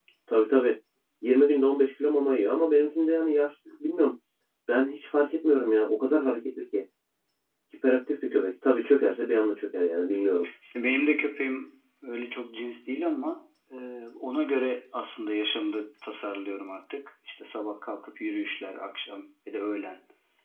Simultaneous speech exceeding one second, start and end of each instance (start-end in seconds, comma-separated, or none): none